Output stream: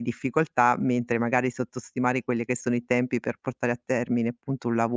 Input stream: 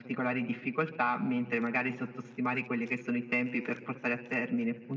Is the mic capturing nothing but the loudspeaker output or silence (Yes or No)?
Yes